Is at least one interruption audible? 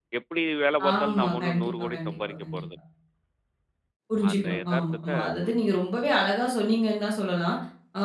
Yes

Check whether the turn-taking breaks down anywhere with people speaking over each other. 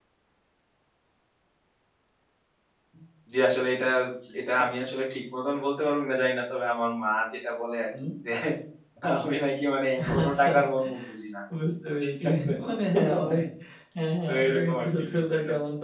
Yes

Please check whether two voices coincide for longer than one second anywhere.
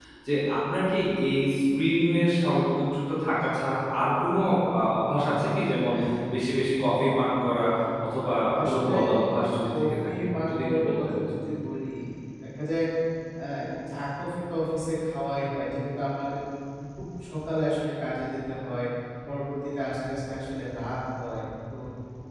Yes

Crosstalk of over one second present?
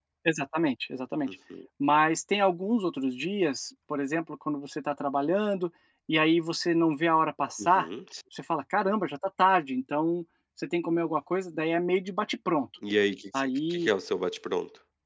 No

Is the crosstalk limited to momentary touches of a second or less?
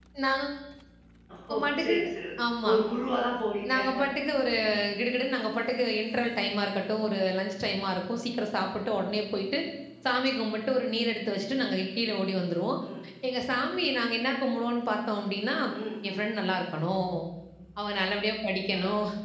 Yes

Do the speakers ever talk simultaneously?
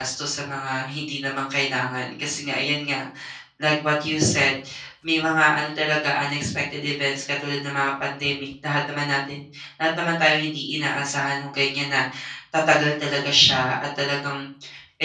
No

